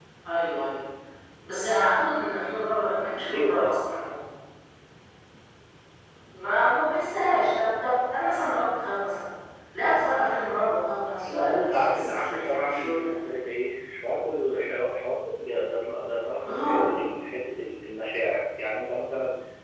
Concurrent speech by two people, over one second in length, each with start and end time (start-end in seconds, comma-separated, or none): 11.2-13.1